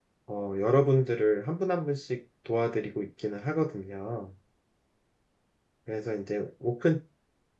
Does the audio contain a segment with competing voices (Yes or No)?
No